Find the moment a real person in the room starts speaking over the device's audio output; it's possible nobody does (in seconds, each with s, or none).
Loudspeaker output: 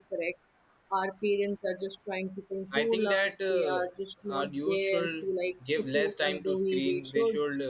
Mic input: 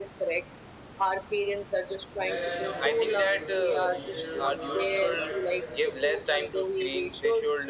2.2 s